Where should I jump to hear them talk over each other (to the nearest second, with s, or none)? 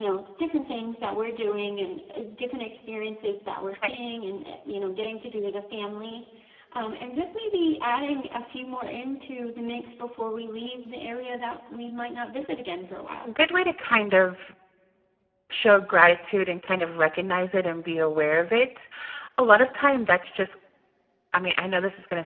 none